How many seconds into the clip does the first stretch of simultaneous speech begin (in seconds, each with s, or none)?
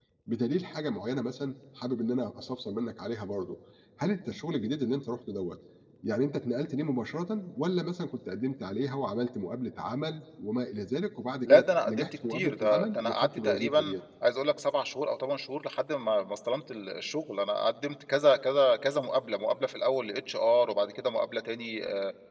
11.4 s